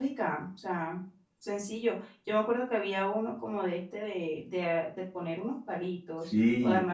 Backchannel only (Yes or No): No